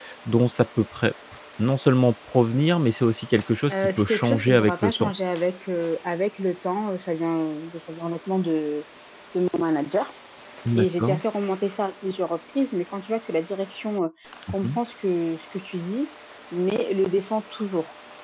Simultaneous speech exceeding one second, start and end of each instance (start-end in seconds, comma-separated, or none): 3.7-5.1